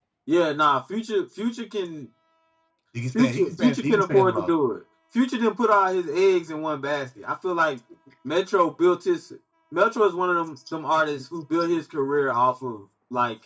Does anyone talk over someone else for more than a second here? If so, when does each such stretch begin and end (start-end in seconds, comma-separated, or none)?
3.1-4.5